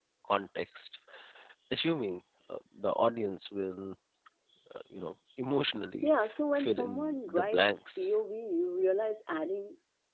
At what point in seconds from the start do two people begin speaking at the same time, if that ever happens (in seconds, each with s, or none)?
6.6 s